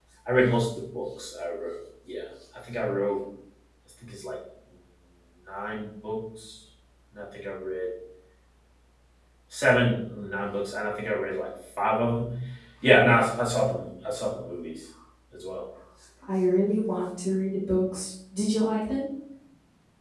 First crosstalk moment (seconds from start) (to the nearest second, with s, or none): none